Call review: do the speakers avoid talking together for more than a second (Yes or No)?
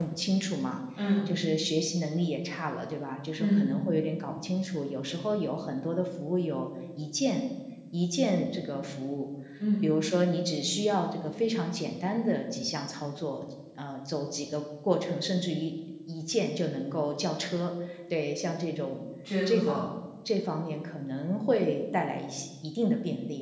Yes